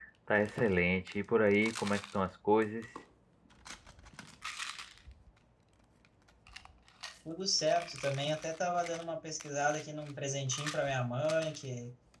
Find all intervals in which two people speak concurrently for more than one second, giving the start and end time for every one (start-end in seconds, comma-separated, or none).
none